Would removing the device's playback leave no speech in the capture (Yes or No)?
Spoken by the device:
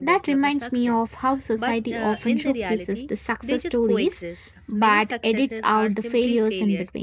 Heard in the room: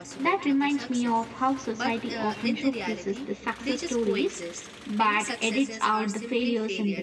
Yes